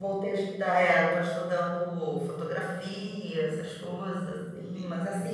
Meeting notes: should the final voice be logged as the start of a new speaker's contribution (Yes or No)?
No